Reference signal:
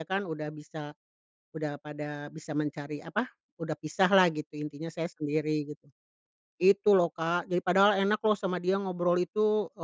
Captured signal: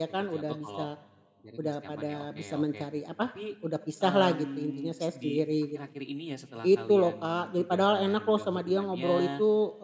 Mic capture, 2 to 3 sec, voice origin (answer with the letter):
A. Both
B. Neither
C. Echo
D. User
A